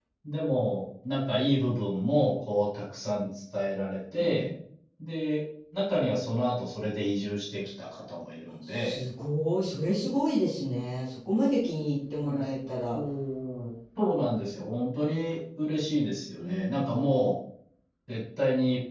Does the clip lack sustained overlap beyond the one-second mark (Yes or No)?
Yes